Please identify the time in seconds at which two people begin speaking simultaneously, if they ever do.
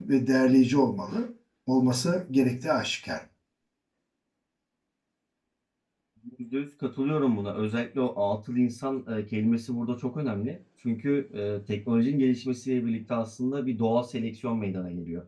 none

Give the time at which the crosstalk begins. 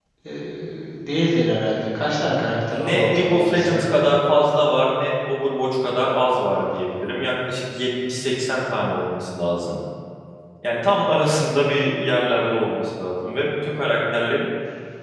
2.7 s

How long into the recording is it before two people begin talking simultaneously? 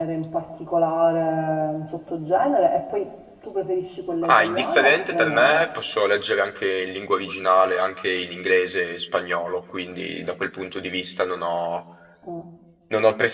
4.2 s

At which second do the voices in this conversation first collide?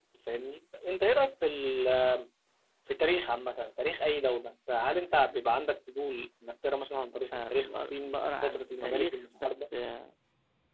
7.3 s

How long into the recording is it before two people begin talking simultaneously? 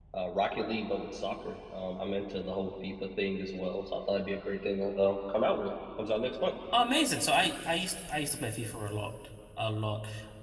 none

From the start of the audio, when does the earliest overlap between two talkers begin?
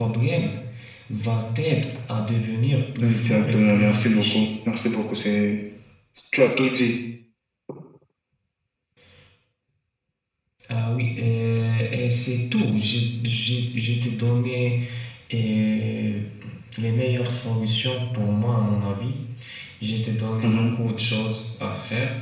3.0 s

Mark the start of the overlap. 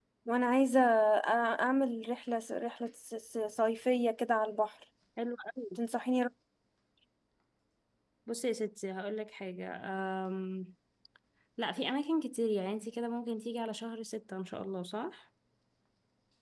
none

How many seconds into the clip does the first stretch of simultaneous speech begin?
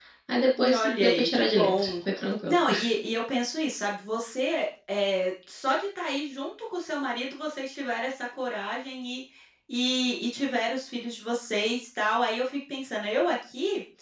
0.7 s

